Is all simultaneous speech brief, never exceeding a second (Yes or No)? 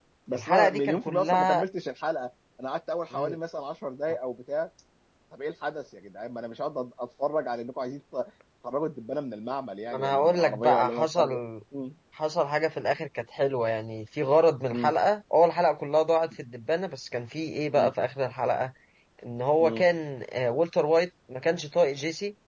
No